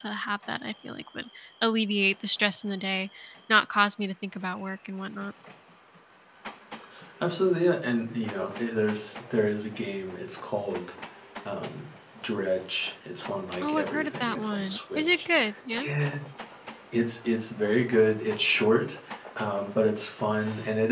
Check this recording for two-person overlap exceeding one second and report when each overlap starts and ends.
13.6-15.2

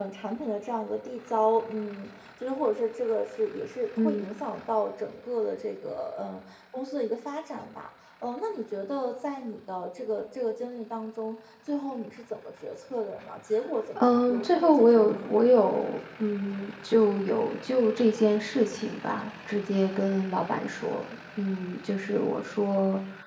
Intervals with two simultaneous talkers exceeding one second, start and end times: 14.0-15.3

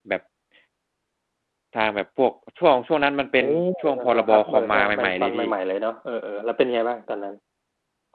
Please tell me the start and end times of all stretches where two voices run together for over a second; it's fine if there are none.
4.1-5.5

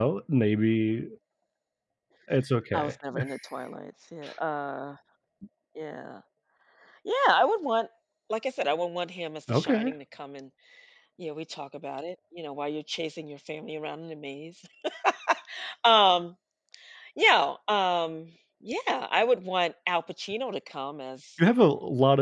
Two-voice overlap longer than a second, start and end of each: none

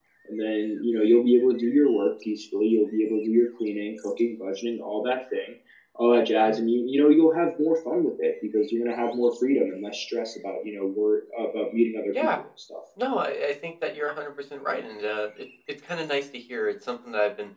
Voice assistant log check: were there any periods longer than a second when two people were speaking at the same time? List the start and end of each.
none

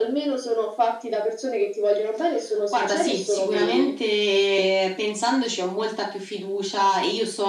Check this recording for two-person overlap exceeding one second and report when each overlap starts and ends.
2.7-3.9

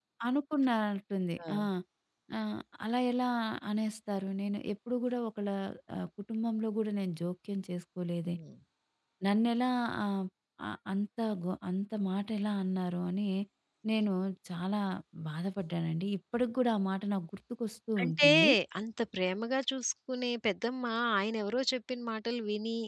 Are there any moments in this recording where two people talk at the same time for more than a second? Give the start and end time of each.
none

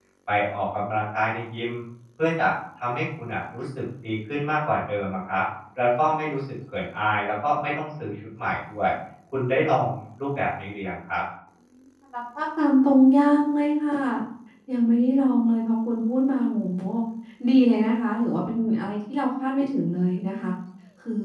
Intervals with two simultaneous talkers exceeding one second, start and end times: none

